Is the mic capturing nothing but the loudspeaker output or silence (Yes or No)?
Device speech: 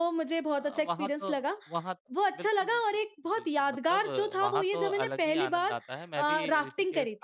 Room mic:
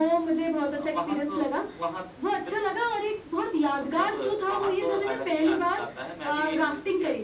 Yes